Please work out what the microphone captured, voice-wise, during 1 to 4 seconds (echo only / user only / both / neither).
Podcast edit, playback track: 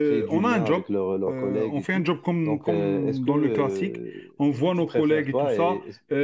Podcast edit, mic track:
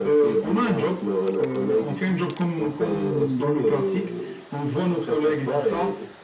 echo only